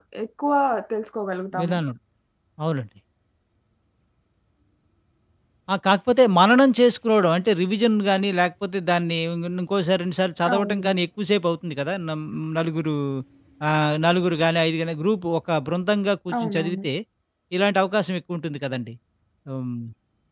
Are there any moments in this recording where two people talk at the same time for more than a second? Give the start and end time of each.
none

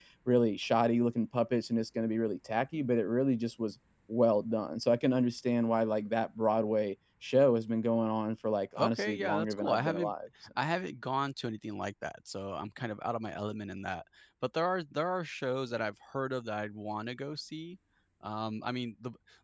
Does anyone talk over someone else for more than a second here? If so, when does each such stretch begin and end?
8.8-10.1

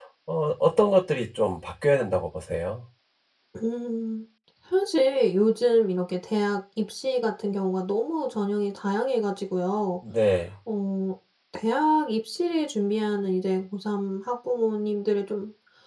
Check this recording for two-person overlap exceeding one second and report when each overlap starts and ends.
none

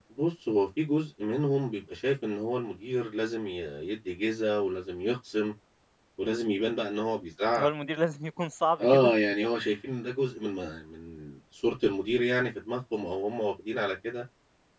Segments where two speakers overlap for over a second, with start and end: none

